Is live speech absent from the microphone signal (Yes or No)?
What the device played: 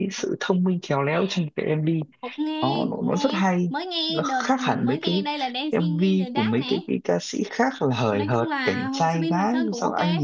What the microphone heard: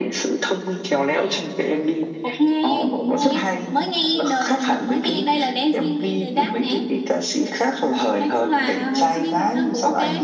Yes